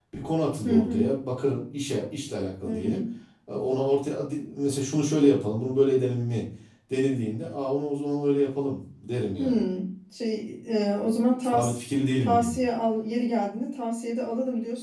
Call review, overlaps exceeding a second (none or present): none